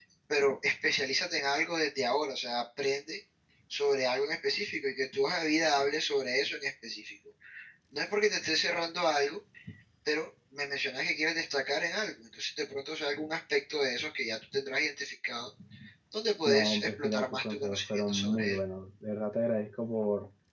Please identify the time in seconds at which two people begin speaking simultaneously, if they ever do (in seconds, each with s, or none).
16.4 s